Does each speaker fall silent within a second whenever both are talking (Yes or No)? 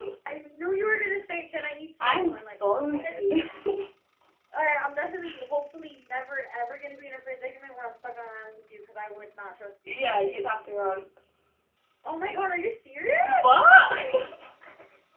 No